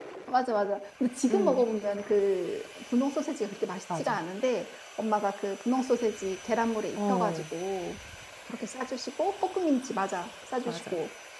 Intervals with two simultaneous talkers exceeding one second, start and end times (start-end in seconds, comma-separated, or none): none